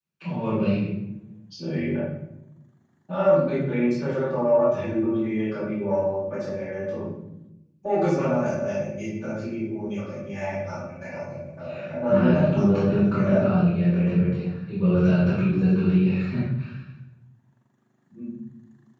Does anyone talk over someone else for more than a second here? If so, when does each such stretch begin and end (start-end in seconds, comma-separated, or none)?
12.0-13.6